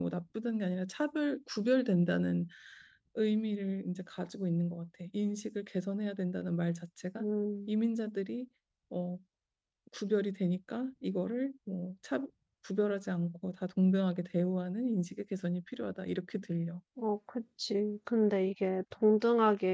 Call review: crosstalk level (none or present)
none